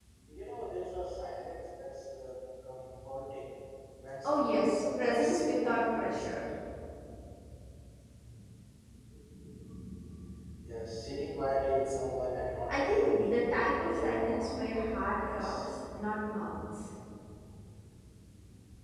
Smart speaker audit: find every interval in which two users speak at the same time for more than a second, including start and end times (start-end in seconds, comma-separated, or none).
4.2-6.5, 12.7-15.6